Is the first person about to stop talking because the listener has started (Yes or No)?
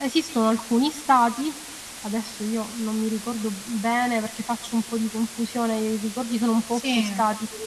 No